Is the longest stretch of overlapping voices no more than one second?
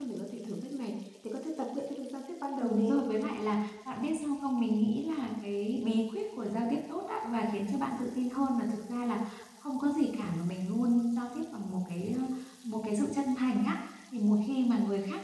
Yes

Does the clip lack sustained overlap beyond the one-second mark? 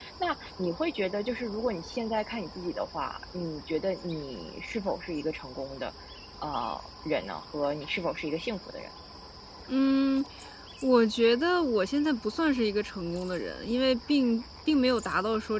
Yes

